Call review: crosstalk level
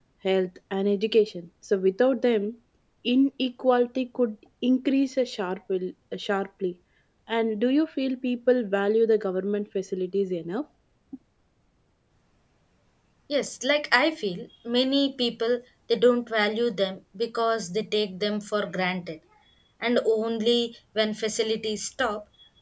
none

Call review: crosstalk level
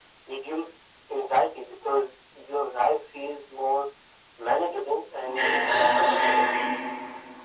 present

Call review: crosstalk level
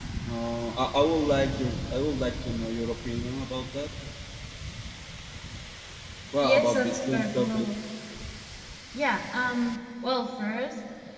present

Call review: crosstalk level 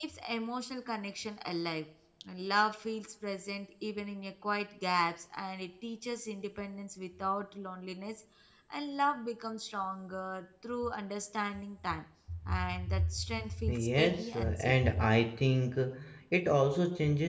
present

